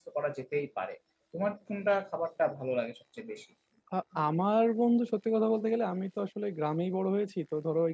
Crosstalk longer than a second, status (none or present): none